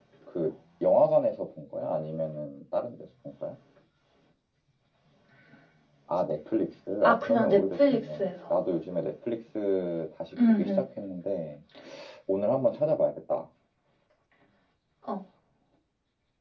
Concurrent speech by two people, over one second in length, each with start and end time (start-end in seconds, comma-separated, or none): 7.0-8.3